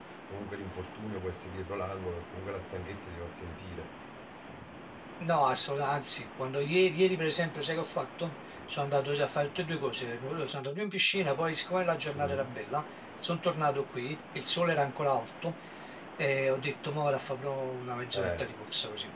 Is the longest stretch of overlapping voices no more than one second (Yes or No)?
Yes